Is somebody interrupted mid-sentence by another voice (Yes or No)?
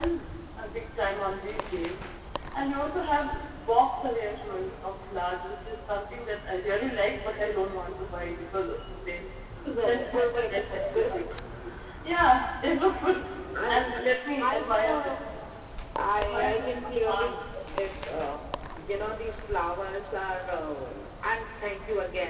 Yes